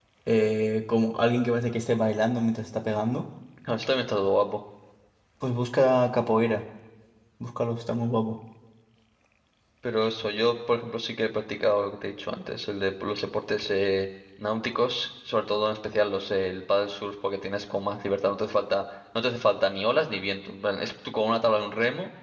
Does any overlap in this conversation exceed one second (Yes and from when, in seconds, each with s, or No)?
No